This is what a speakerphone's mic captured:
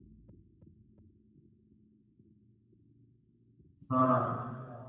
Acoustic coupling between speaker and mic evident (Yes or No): No